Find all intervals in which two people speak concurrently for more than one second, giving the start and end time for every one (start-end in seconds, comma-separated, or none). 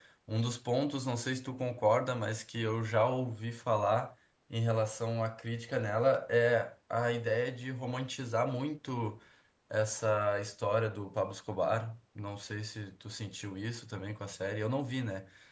none